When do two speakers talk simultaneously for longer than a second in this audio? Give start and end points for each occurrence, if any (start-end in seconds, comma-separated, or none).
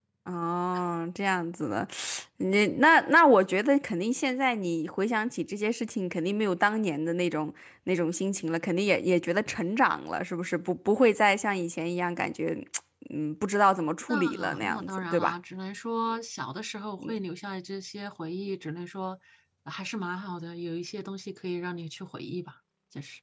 14.1-15.3